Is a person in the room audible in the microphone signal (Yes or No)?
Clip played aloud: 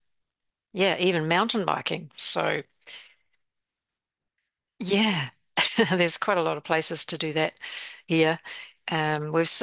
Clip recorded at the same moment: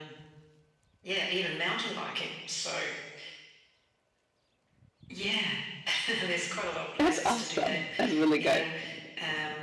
Yes